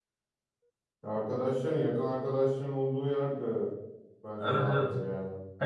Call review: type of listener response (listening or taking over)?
taking over